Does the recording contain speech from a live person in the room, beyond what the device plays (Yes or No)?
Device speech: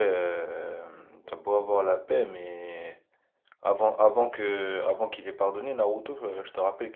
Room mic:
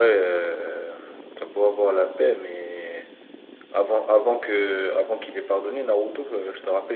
No